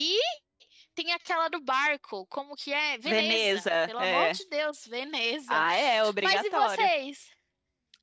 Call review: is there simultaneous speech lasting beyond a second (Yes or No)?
Yes